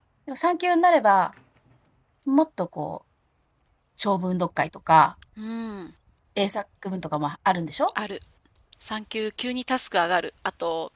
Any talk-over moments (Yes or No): No